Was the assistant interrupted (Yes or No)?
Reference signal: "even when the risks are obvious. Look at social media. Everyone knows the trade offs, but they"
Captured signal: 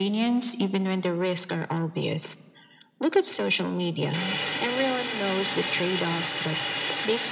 No